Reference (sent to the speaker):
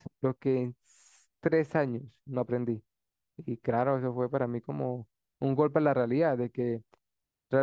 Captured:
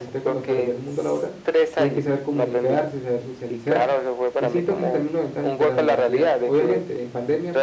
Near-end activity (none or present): present